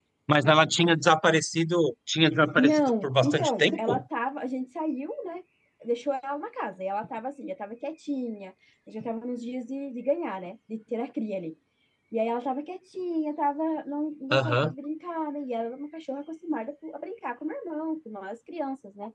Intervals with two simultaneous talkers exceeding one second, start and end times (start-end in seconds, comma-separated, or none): 2.6-4.0